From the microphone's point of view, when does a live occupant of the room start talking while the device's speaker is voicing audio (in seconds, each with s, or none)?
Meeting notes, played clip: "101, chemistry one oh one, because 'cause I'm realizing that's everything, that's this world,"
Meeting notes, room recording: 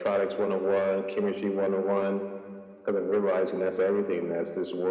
none